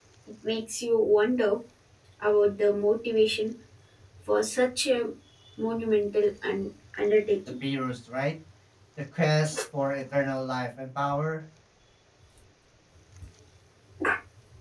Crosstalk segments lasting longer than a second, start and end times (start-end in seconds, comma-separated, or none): none